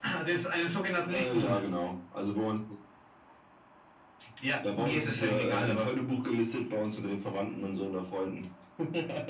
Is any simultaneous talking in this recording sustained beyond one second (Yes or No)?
Yes